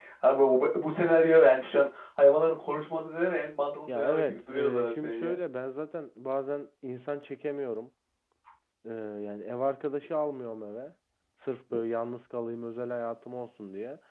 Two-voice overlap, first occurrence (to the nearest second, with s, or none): 4 s